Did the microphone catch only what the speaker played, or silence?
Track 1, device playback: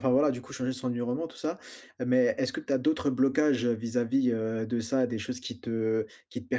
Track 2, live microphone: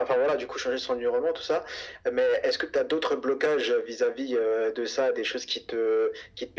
Yes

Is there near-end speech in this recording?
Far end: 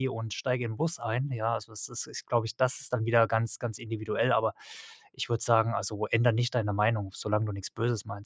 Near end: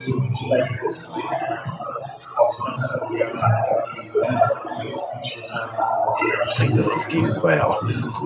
Yes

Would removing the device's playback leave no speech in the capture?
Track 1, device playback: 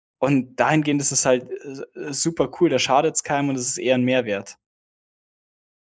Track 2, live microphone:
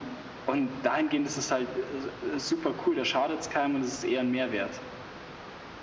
Yes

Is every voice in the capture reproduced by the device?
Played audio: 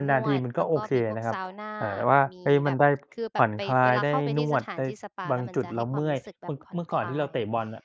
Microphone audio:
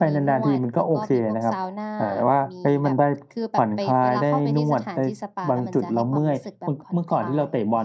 Yes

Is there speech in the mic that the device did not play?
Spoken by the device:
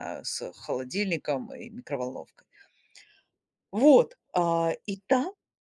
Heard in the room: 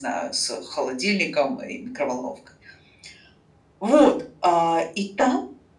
No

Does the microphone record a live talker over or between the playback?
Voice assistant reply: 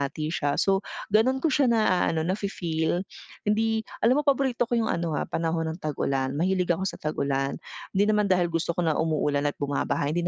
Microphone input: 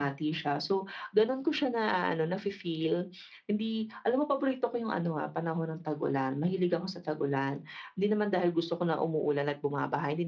No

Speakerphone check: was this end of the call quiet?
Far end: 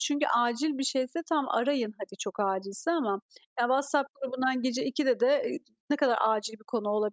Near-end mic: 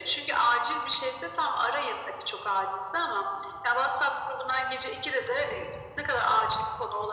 Yes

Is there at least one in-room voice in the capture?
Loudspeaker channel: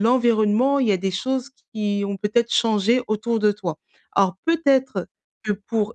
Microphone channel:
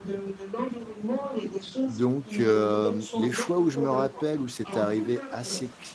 Yes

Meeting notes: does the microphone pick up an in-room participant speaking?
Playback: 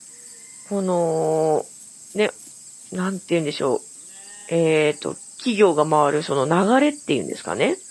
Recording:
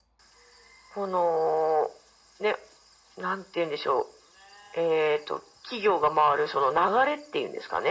No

